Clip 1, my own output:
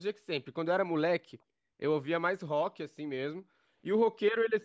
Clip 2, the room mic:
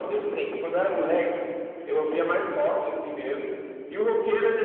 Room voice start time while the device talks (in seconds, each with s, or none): none